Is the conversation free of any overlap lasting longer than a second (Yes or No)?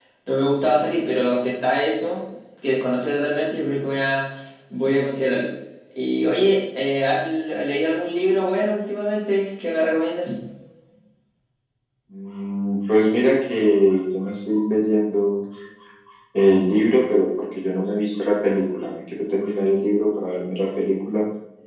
Yes